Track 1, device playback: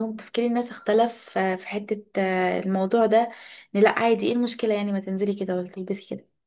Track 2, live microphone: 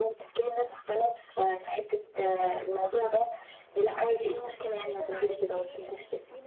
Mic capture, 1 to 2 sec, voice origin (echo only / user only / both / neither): echo only